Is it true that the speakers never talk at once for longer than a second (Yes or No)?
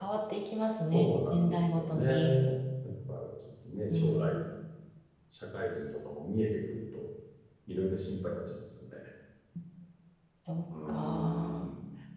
No